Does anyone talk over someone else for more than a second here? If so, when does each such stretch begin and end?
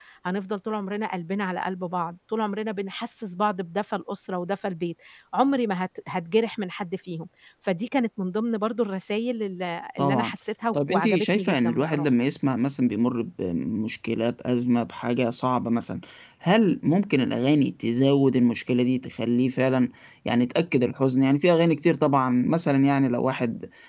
10.7-12.1

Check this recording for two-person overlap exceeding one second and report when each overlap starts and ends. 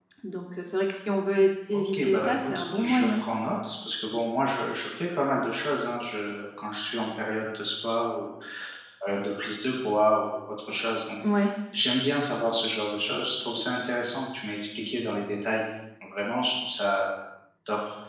1.7-3.2

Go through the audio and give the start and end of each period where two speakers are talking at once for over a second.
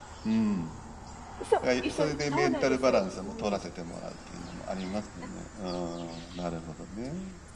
1.6-3.7

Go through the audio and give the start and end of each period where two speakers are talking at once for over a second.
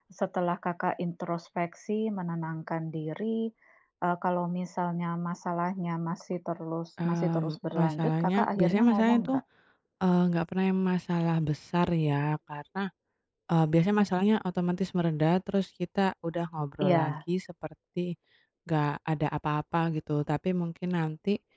7.0-9.4

